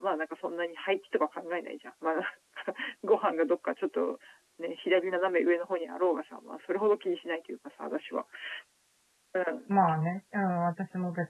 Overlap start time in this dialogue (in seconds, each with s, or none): none